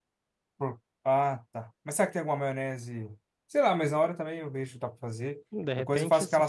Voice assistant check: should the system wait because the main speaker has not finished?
No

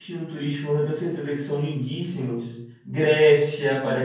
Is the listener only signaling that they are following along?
No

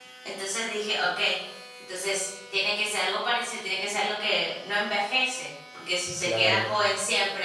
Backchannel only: Yes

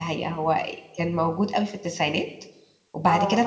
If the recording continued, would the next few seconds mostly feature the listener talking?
No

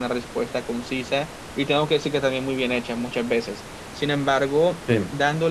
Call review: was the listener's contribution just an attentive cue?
Yes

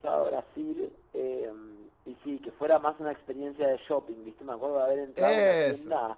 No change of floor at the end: Yes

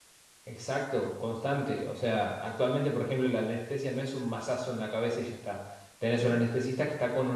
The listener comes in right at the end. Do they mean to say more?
No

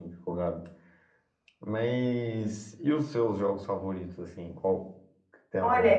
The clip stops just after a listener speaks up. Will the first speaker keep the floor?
No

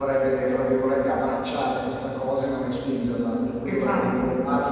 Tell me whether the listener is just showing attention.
Yes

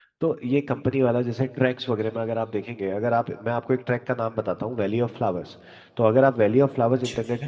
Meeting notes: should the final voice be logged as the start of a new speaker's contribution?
No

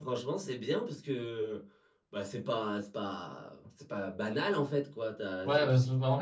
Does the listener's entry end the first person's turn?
Yes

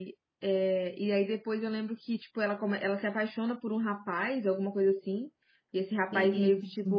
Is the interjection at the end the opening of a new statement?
No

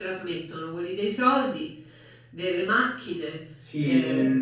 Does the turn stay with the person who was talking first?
No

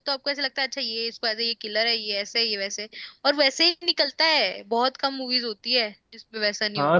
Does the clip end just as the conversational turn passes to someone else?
Yes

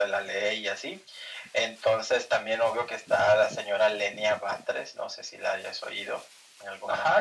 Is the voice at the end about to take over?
Yes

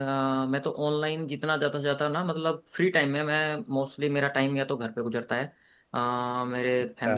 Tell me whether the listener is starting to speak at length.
No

